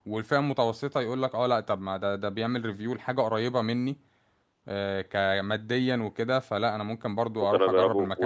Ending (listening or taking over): taking over